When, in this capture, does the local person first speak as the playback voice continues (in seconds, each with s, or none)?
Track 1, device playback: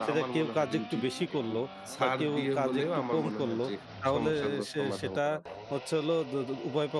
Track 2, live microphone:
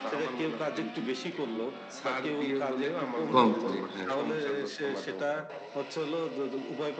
3.3 s